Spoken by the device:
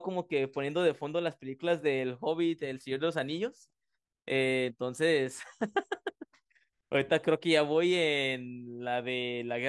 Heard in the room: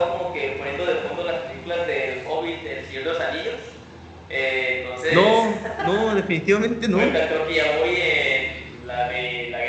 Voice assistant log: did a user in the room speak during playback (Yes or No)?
Yes